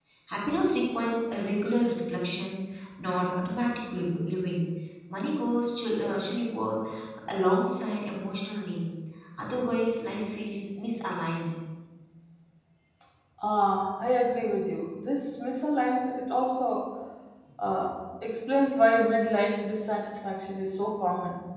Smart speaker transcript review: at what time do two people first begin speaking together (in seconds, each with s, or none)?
none